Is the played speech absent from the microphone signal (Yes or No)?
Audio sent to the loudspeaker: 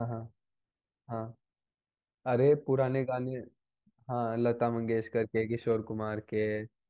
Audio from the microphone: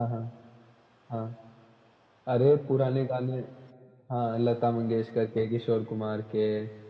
No